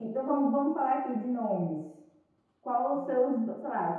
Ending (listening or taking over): listening